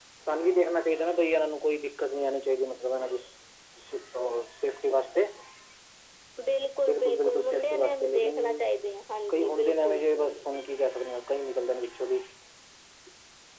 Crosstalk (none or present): present